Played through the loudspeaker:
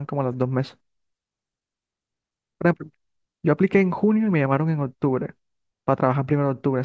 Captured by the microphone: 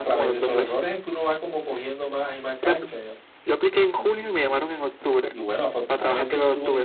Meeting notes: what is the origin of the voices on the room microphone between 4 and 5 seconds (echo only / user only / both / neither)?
both